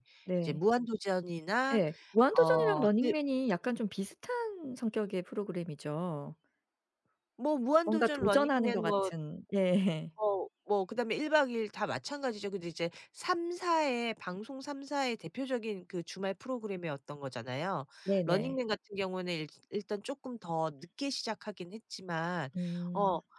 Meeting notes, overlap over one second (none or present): present